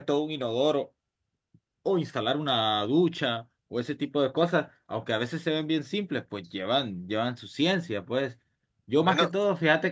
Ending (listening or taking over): listening